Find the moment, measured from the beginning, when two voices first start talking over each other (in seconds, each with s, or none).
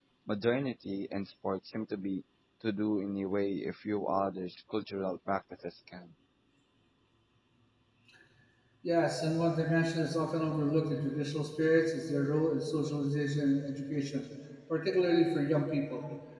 none